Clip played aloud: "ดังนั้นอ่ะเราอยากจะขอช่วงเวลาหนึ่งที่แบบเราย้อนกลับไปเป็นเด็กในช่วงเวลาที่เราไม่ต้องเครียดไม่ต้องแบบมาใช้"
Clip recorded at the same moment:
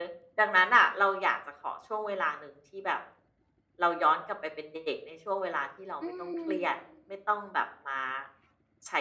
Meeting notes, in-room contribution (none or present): present